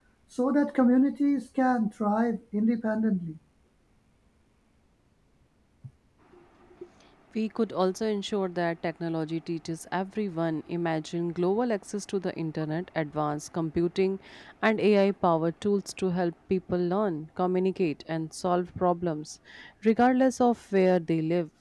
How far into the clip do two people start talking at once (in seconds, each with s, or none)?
none